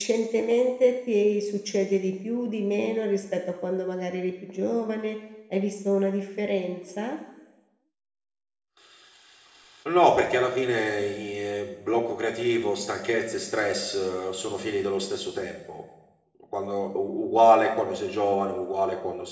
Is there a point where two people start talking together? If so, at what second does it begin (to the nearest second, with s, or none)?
none